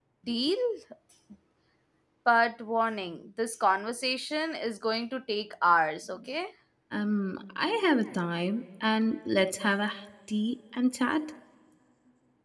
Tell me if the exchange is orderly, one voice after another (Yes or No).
Yes